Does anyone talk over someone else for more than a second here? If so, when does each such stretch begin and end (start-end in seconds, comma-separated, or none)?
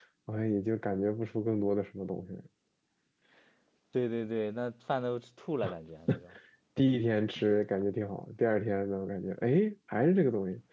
none